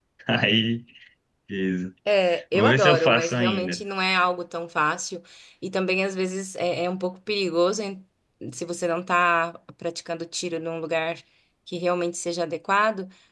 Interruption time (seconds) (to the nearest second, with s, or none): 3 s